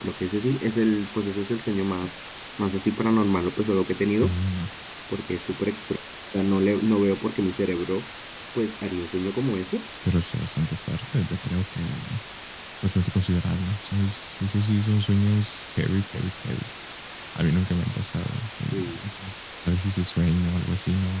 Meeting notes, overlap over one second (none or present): none